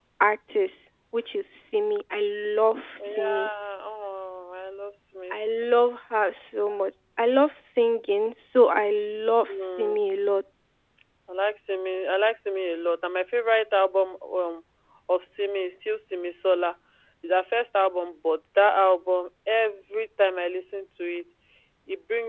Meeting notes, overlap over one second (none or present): none